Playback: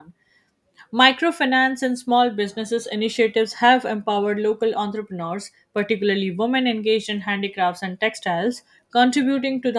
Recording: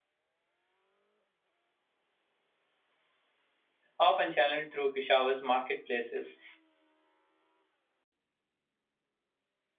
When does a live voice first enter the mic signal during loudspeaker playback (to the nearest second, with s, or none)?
4 s